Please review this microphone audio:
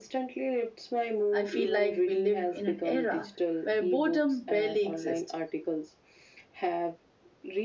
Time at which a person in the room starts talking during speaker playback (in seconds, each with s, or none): 1.3 s